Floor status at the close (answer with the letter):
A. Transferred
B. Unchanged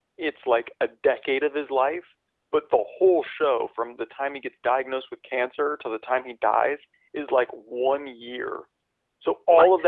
B